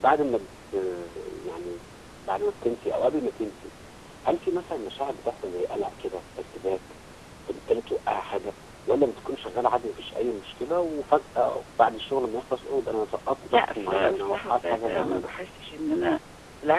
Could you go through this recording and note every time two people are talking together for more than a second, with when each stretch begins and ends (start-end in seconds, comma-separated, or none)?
13.5-15.3